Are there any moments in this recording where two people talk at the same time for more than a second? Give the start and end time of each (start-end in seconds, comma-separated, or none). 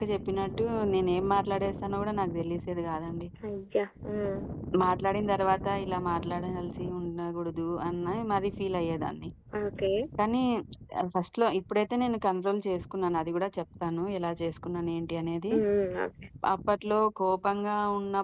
none